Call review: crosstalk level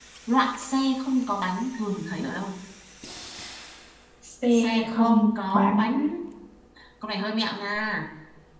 present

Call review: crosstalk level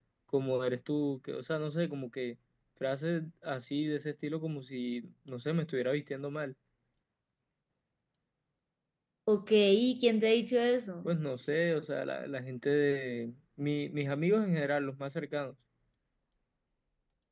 none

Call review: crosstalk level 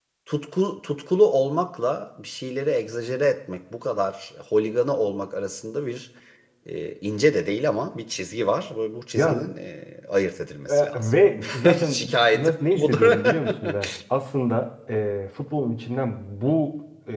present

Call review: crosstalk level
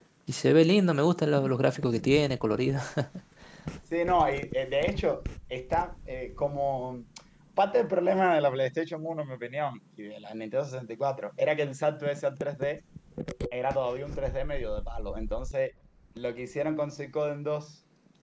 none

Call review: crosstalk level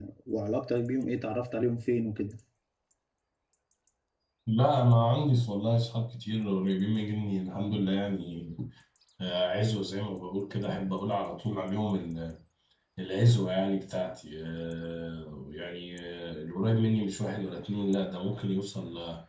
none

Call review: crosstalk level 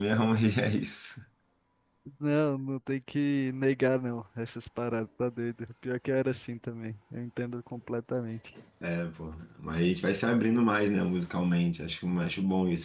none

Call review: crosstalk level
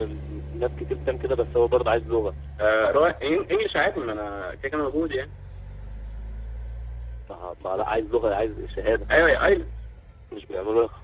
none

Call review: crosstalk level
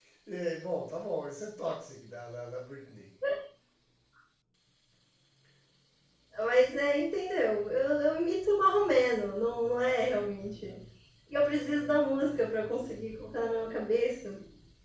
none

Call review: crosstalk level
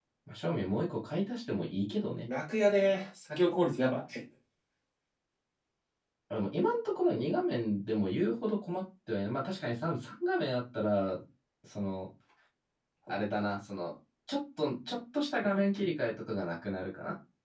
none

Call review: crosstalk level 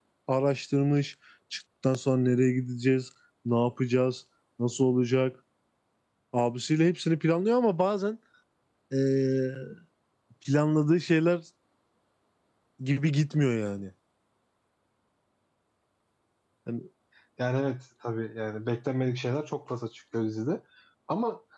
none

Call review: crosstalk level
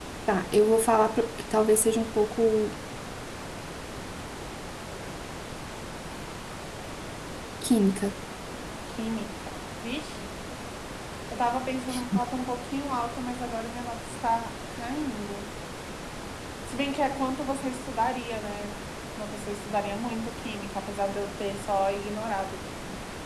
none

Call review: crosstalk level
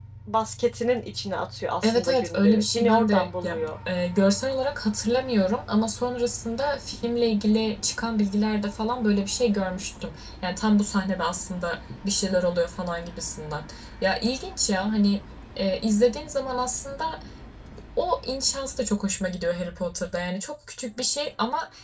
present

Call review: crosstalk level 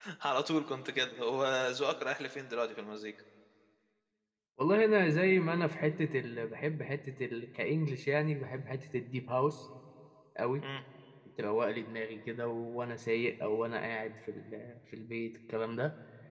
none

